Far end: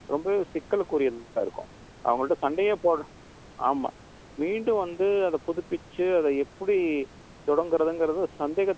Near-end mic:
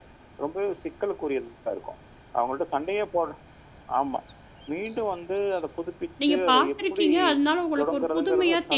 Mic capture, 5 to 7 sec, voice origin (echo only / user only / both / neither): both